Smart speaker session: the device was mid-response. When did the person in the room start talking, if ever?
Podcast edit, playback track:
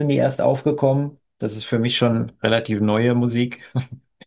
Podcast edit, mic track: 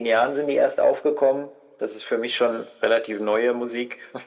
none

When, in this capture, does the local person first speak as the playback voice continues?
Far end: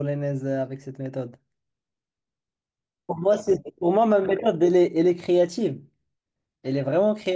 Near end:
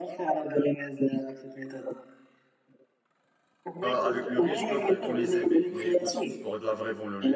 3.8 s

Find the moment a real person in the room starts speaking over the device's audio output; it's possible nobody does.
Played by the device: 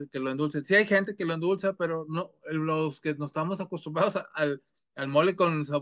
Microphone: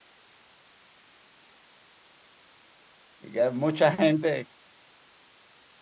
3.2 s

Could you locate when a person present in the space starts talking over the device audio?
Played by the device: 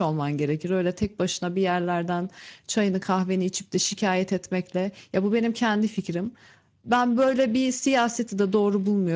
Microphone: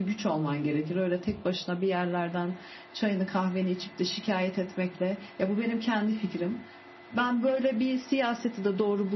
none

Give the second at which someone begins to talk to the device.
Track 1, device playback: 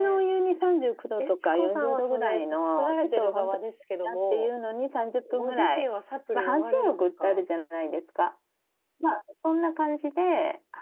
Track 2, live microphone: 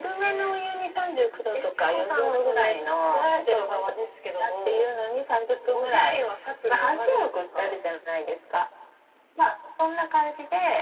none

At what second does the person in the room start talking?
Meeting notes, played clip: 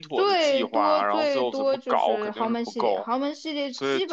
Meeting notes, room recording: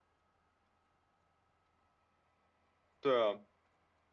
3.0 s

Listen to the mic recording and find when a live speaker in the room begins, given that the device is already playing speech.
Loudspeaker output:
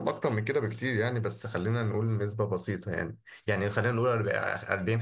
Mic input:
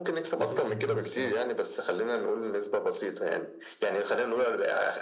0.4 s

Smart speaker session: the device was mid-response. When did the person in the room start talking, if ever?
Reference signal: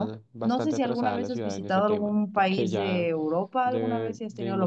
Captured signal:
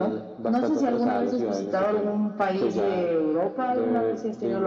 none

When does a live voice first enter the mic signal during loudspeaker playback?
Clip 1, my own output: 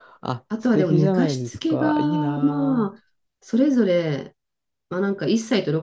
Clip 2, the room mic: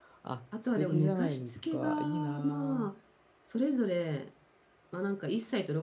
none

